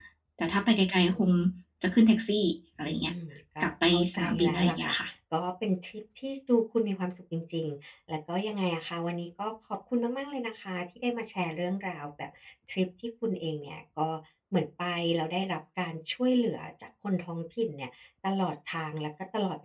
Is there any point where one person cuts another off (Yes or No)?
Yes